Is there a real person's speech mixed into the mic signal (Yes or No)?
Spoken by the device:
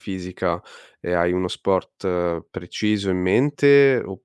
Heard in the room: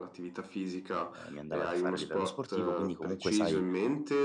Yes